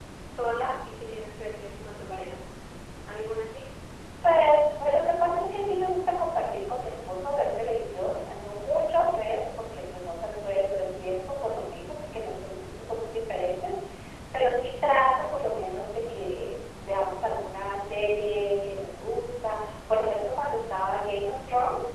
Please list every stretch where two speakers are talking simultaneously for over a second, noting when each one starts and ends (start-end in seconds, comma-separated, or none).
none